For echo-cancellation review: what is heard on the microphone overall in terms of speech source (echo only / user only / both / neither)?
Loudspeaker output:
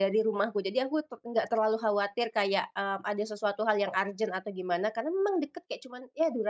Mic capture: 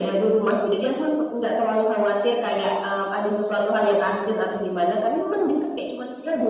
echo only